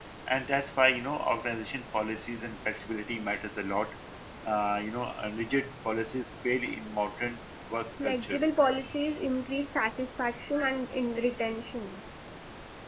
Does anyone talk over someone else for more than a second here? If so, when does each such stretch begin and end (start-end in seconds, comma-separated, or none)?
none